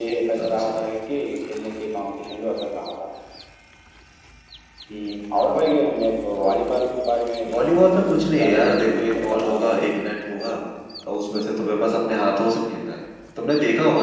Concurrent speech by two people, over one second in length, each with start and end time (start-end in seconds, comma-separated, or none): 7.5-9.8